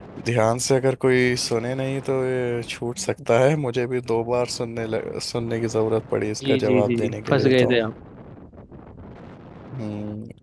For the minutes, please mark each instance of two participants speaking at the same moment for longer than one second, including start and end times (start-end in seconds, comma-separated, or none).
6.4-7.7